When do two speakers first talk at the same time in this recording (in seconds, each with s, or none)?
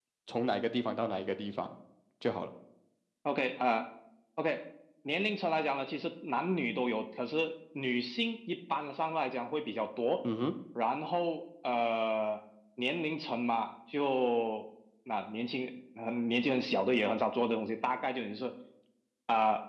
none